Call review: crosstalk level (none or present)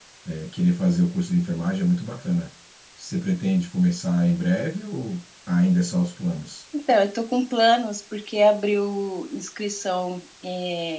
none